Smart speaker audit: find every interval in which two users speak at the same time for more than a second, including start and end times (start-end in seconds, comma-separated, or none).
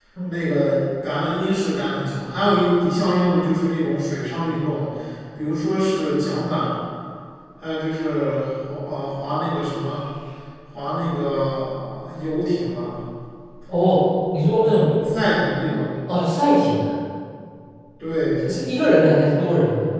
none